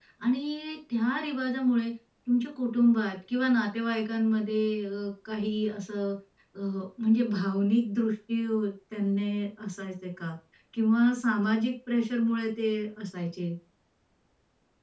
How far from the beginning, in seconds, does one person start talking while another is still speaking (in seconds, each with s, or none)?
none